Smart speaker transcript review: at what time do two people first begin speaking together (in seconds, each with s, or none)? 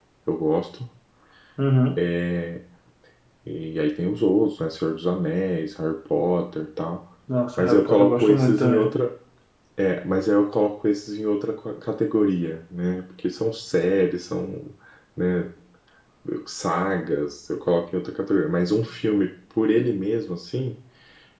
7.6 s